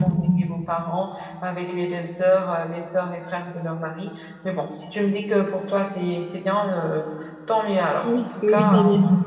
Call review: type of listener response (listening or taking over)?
taking over